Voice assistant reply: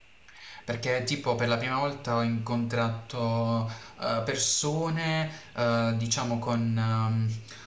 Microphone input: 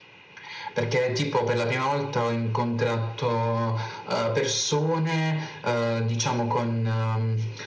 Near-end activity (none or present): none